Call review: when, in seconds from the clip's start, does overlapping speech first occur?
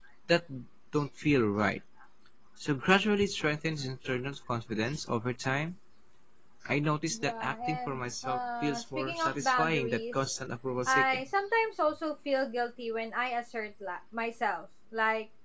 7.1 s

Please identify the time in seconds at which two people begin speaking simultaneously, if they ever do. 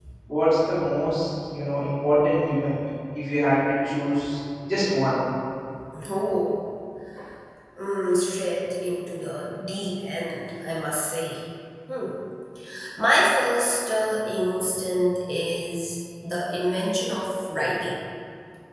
none

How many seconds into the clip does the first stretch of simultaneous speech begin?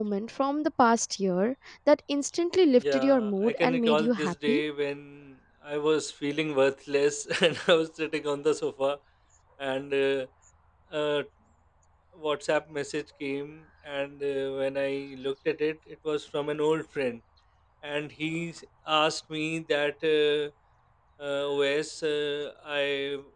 2.8 s

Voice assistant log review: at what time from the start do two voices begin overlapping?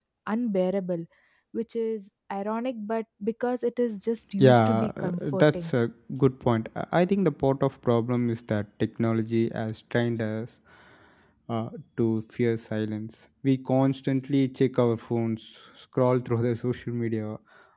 4.4 s

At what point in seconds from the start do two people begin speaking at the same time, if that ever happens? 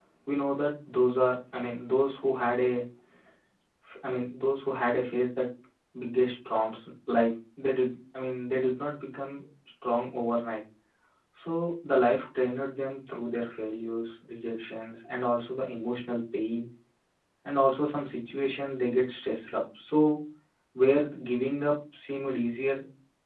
none

